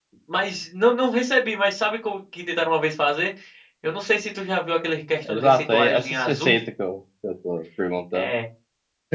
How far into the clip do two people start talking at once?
5.2 s

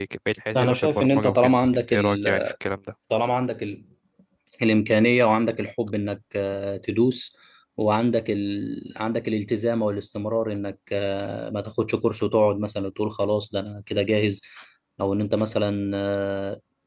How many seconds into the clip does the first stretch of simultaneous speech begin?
0.6 s

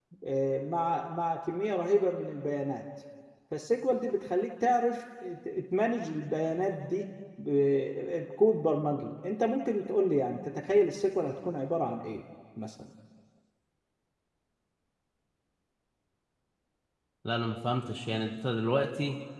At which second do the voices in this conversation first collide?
none

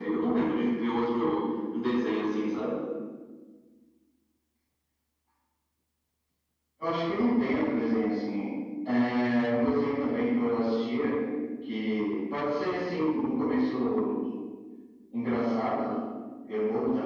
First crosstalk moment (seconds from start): none

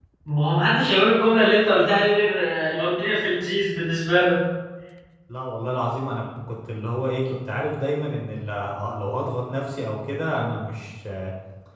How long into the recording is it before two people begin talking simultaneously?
none

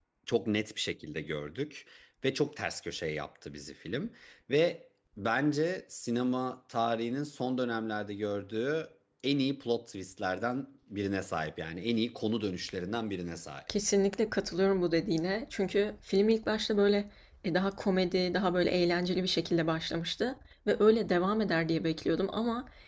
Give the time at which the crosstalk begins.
none

